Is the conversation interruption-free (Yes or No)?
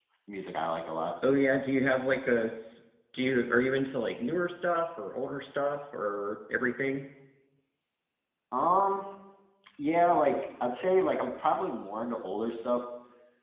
Yes